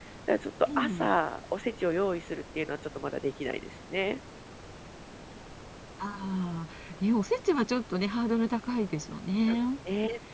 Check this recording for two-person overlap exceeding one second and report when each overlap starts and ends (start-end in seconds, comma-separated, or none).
none